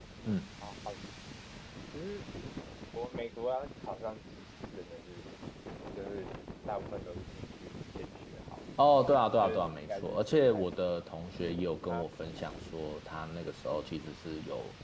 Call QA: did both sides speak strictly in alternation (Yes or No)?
No